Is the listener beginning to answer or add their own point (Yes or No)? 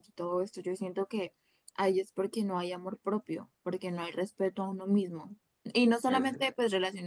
No